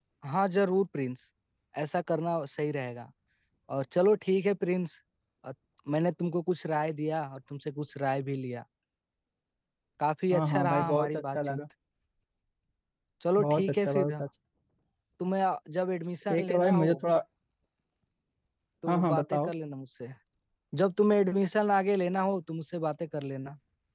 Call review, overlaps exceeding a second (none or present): present